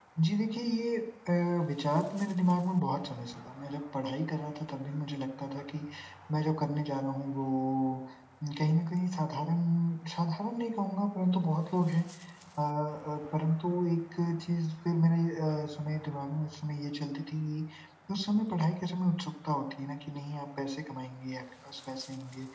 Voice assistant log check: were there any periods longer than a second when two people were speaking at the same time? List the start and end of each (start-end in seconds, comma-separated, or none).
none